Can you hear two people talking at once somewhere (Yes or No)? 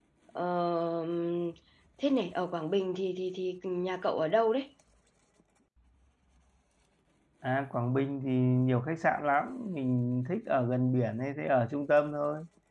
No